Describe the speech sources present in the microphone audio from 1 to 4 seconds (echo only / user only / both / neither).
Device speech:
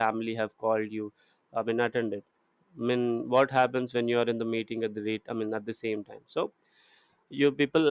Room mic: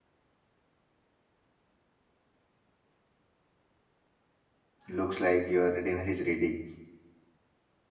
neither